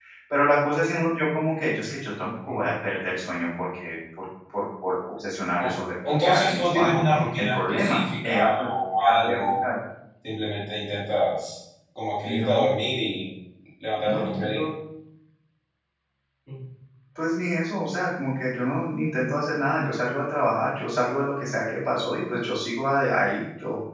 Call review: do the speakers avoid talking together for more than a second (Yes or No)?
No